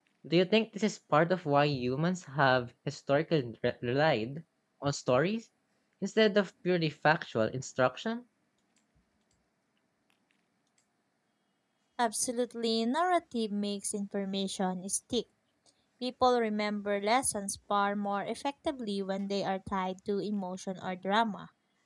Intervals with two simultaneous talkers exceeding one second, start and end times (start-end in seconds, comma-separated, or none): none